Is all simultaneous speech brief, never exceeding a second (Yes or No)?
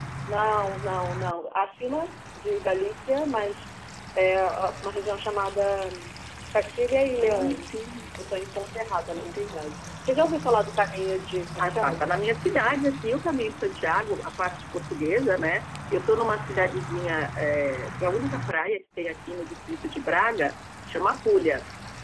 Yes